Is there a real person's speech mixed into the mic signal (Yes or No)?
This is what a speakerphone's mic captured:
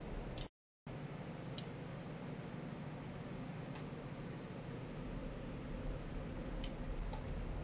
No